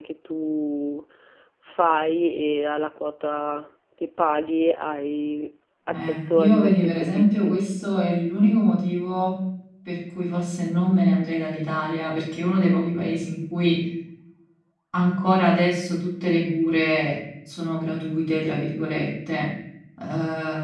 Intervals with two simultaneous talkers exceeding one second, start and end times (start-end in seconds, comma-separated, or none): 5.9-7.6